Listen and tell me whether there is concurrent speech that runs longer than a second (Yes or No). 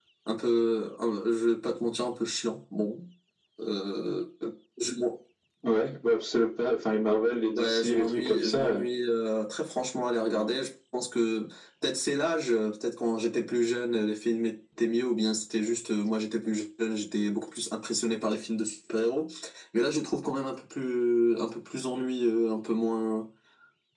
Yes